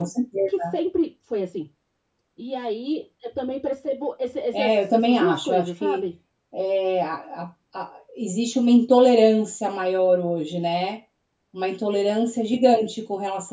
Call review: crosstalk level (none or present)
present